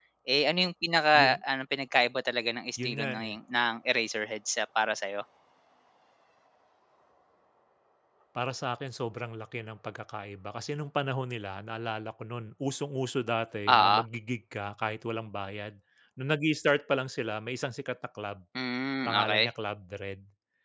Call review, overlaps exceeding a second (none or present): none